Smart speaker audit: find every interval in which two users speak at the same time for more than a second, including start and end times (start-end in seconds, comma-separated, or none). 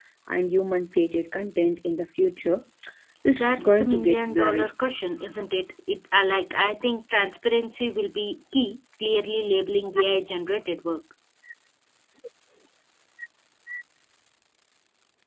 3.3-4.7